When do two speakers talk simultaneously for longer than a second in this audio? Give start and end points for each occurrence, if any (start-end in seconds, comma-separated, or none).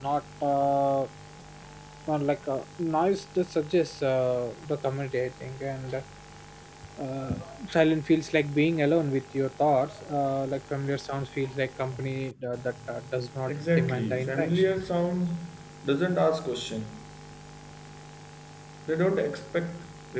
13.5-14.8